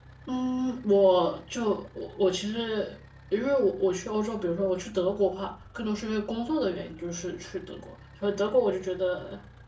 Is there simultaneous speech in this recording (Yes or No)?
No